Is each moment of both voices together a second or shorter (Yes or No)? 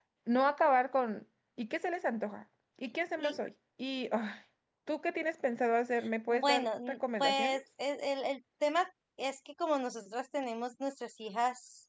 No